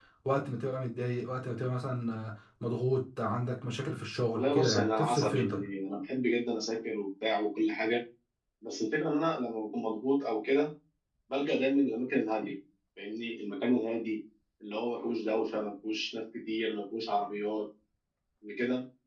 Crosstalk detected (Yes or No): Yes